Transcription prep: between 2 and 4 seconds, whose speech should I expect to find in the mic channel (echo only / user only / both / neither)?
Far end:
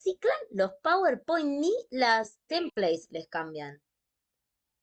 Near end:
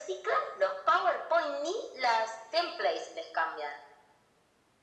echo only